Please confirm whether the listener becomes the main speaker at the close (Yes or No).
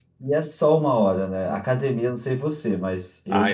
Yes